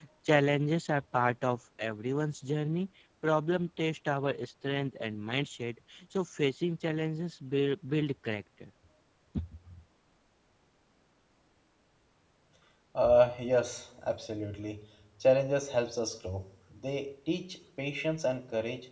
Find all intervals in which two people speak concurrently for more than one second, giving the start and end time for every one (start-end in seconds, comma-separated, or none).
none